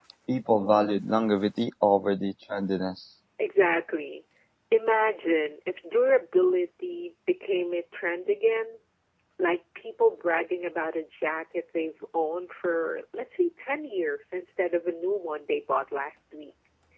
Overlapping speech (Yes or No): No